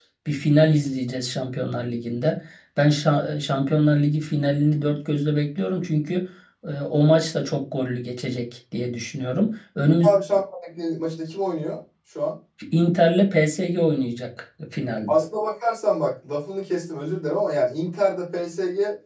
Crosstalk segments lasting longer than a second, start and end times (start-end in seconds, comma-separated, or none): none